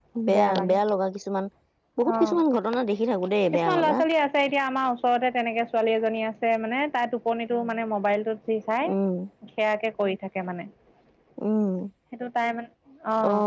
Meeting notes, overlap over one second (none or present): none